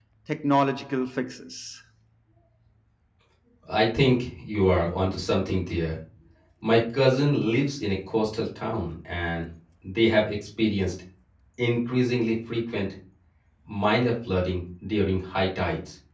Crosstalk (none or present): none